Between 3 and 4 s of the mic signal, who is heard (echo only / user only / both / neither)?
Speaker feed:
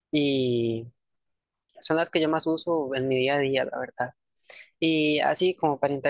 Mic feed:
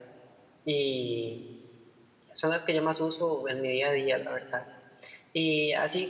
echo only